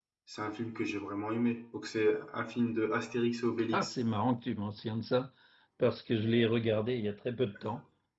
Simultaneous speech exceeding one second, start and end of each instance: none

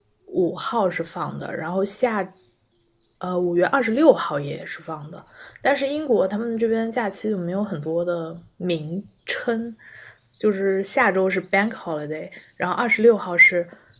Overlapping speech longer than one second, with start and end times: none

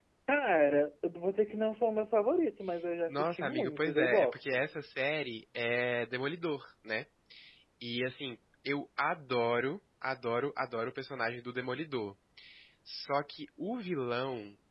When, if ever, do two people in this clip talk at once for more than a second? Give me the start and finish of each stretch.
3.1-4.6

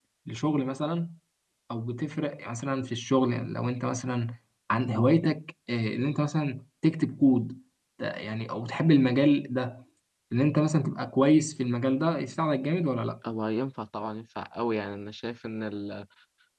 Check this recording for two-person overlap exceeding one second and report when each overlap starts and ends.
none

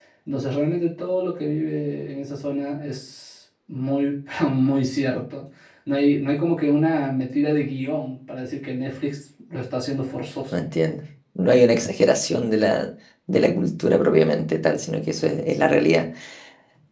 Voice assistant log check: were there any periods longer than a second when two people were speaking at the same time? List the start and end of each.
none

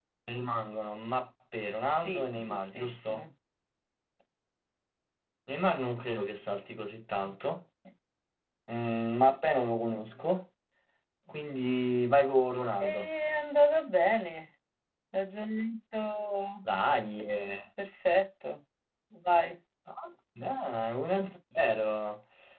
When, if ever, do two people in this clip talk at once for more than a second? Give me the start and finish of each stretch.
2.0-3.2

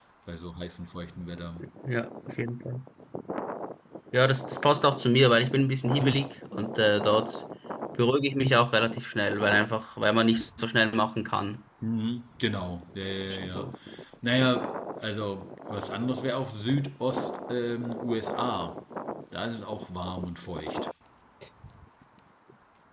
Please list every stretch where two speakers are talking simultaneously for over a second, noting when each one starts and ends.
none

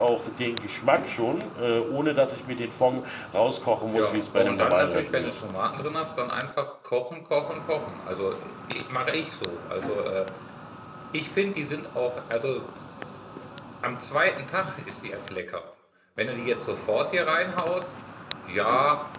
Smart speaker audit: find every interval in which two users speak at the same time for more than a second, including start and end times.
3.9-5.4

